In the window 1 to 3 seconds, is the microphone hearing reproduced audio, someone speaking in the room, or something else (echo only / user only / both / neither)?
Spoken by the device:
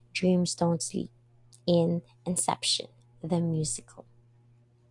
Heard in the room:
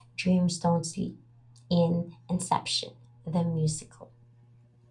echo only